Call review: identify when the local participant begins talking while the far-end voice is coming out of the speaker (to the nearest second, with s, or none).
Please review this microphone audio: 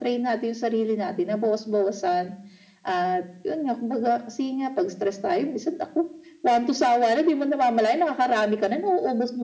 none